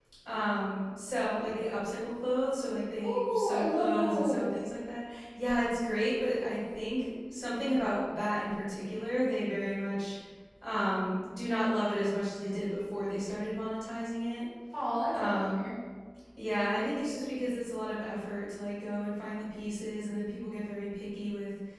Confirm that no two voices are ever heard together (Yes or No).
No